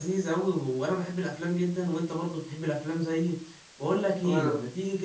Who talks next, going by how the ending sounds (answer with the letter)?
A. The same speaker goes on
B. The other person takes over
A